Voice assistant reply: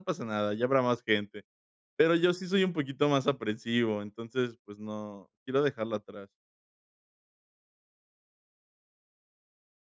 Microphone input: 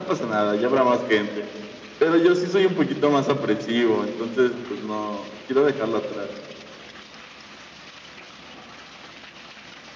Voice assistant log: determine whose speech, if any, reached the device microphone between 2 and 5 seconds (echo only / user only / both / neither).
echo only